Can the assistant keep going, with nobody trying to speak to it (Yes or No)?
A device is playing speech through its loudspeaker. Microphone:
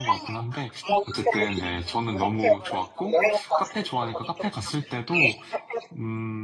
No